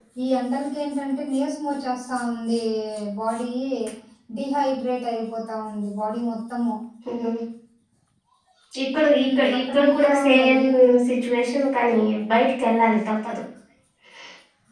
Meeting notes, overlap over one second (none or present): present